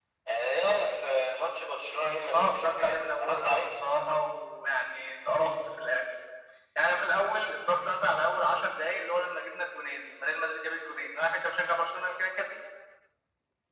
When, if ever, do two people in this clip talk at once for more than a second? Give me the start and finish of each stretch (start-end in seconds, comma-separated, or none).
2.3-3.7